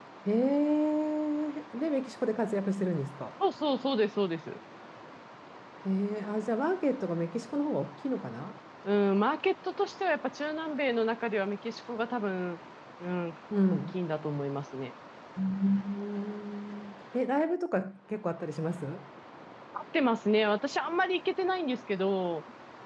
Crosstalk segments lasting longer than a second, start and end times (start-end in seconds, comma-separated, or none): none